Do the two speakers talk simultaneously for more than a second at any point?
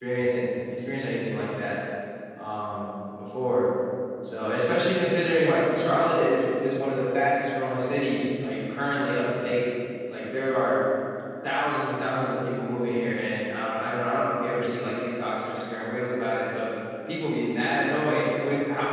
No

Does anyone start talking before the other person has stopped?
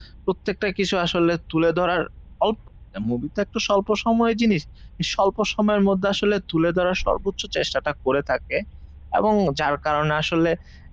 No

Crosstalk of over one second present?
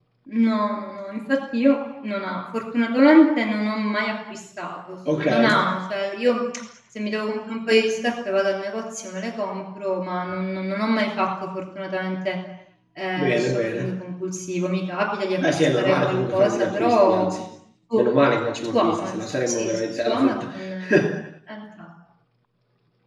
Yes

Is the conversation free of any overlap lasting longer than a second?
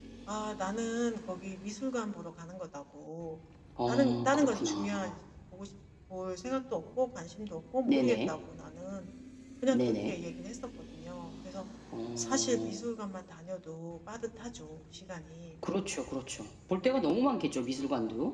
No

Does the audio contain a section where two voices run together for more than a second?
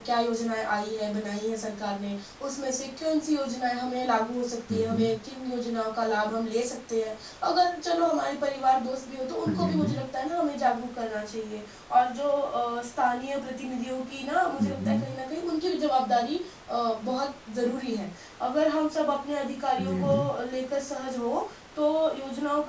No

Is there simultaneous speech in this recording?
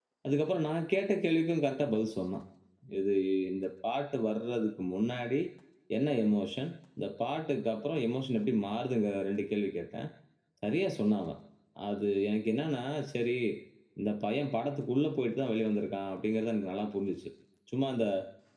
No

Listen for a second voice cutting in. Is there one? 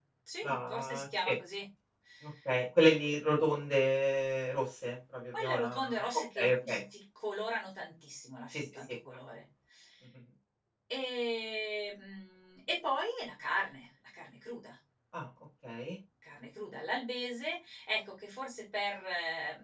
Yes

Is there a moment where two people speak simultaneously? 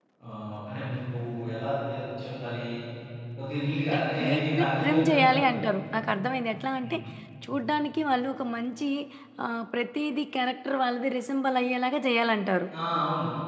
Yes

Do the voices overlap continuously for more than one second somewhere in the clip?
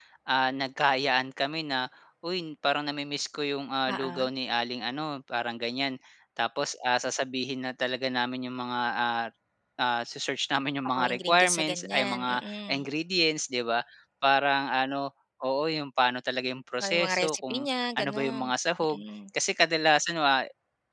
Yes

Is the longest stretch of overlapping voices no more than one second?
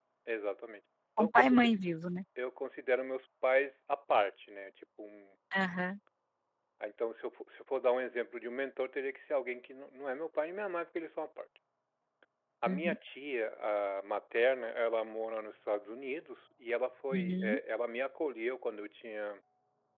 Yes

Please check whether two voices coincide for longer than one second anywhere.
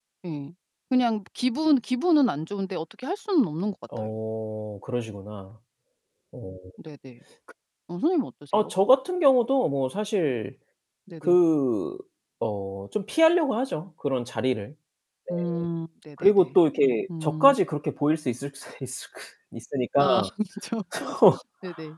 No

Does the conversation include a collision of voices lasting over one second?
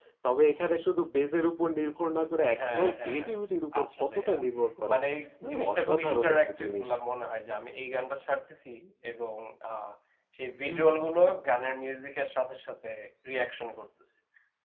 Yes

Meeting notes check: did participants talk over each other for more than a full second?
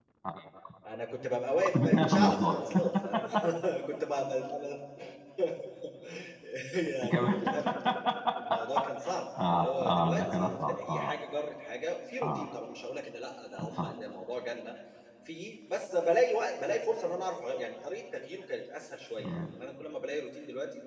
Yes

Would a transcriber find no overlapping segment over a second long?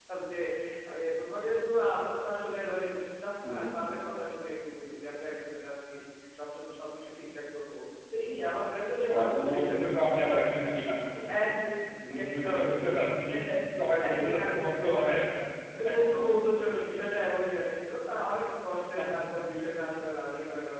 No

